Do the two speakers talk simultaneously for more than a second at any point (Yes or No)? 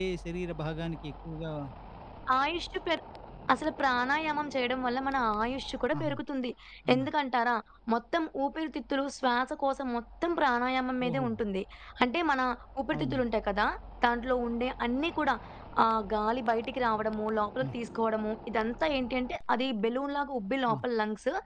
No